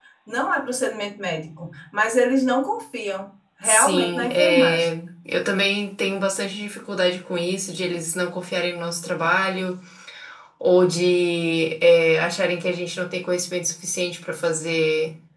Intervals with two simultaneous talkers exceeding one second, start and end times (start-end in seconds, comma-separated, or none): 3.6-4.9